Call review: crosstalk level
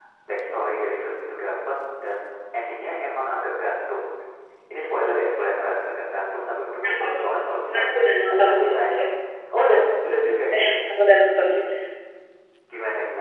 present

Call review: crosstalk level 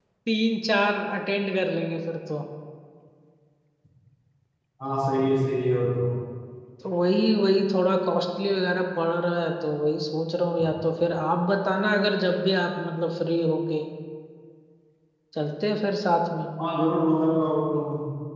none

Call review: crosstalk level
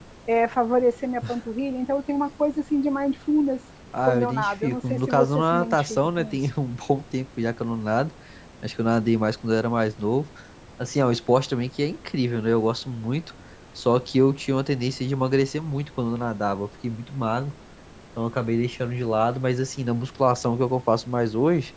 present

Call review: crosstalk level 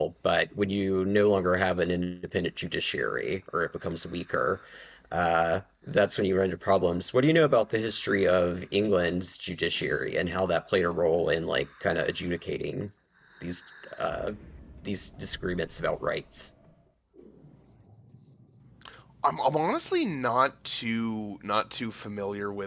none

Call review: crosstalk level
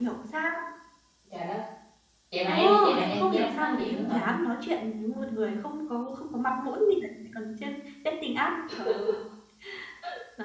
present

